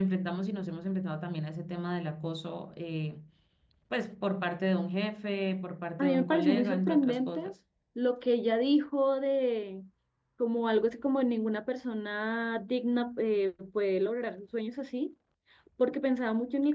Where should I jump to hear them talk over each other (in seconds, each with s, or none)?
6.0 s